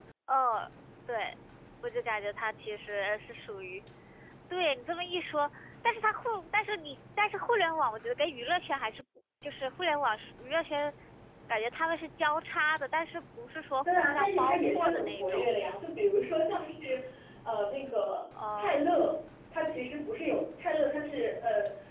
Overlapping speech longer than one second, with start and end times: 14.0-15.5

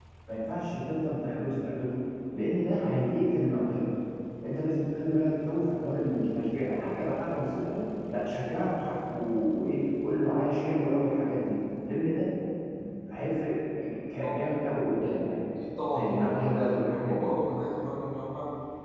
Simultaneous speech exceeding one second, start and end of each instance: 15.9-17.3

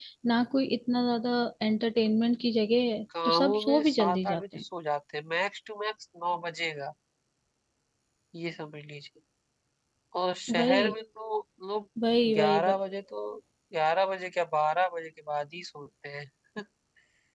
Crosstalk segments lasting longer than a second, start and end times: 3.2-4.6

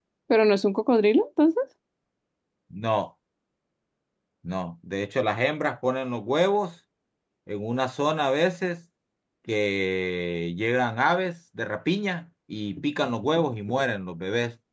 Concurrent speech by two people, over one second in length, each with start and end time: none

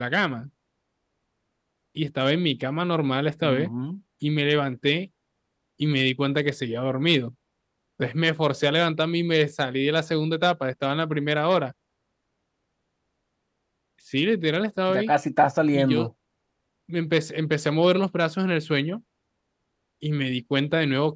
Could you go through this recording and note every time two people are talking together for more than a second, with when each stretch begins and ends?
none

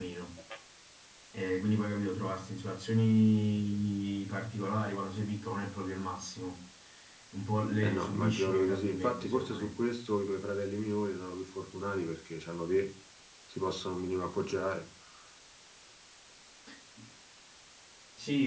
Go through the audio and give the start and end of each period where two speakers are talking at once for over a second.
7.8-9.7

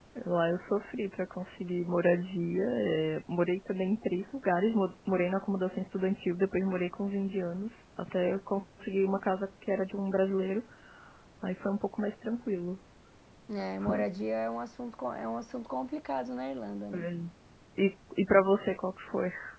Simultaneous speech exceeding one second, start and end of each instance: none

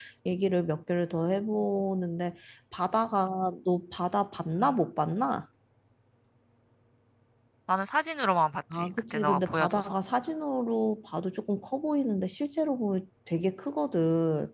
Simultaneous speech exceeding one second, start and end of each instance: 8.7-9.9

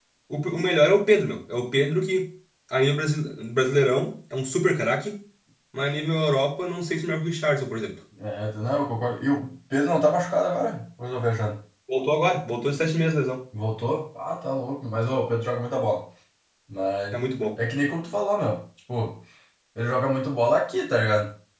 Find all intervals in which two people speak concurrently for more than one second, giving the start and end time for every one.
none

